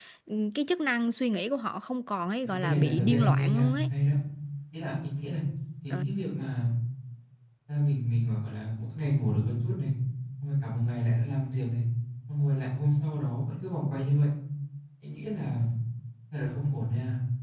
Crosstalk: present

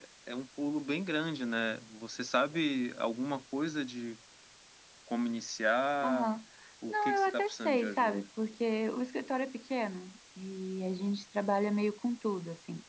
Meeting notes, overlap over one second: present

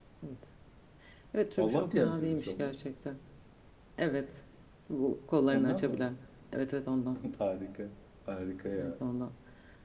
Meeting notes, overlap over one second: present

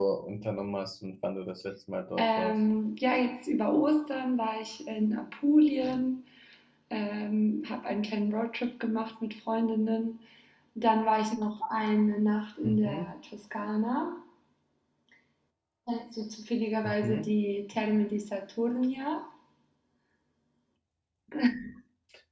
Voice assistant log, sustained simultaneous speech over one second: none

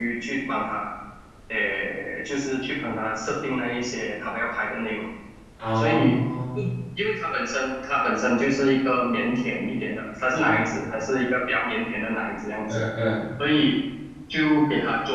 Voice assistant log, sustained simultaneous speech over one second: none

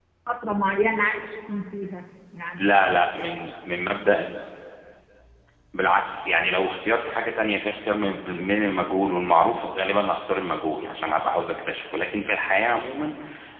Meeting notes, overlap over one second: none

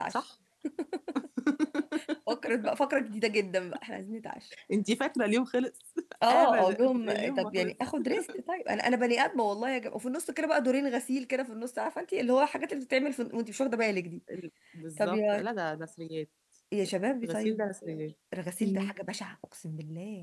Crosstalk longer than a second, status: present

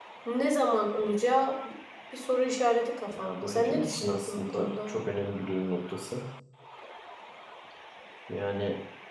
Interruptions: present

